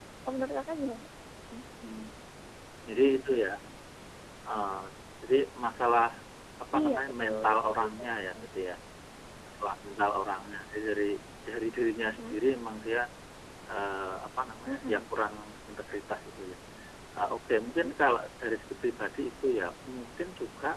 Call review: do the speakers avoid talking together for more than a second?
No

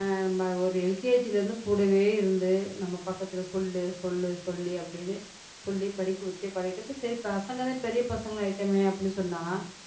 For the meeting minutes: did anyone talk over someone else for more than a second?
No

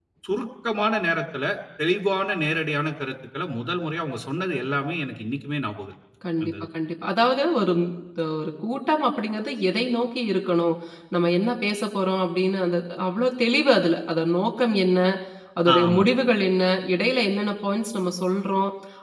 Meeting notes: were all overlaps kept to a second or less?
Yes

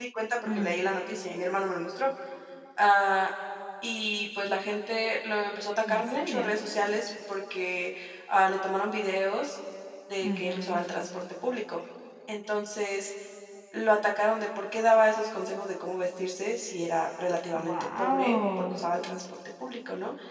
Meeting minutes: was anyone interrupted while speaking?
Yes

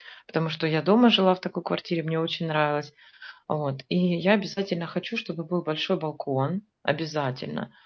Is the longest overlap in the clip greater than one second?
No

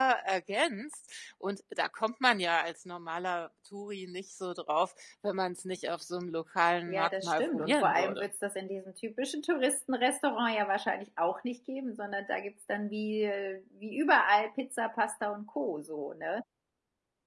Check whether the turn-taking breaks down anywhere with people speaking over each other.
Yes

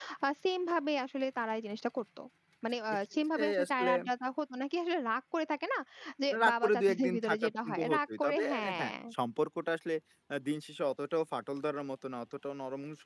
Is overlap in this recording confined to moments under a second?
No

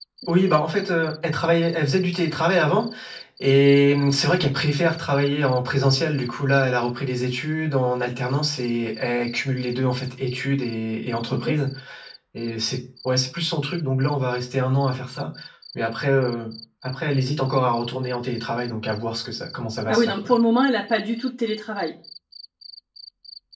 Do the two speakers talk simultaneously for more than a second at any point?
No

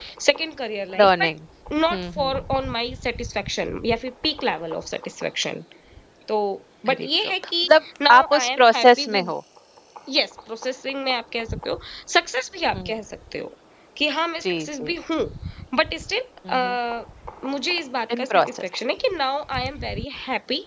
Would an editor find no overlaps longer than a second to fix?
No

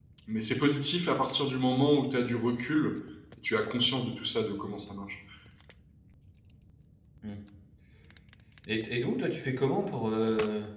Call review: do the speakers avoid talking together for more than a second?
Yes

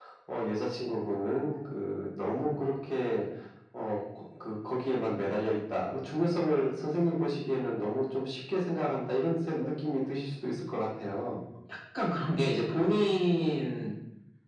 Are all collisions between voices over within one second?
Yes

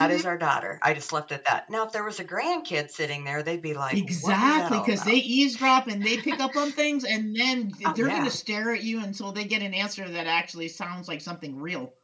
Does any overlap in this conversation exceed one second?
Yes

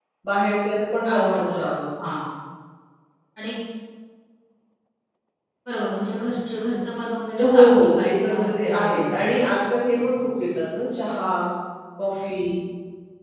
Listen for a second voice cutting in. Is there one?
Yes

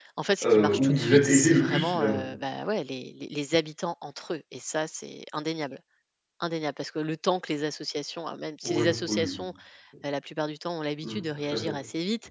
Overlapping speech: Yes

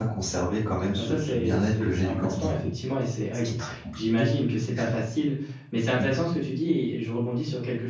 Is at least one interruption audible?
Yes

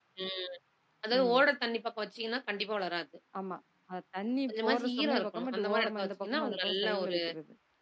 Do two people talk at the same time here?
Yes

